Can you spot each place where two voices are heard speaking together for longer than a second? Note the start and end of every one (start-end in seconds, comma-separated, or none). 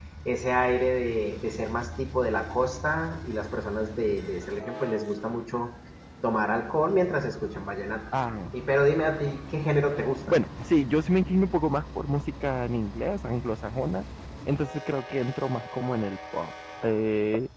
none